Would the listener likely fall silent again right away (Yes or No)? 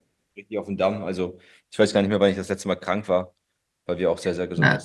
No